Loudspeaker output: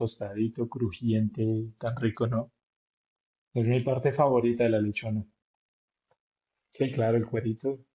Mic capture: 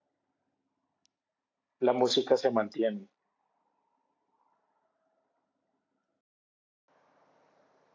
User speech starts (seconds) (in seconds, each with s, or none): 1.8 s